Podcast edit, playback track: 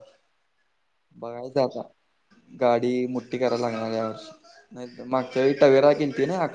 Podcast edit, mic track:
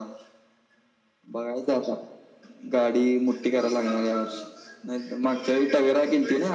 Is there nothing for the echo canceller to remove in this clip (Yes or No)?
No